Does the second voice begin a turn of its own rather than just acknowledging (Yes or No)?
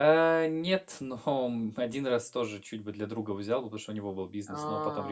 No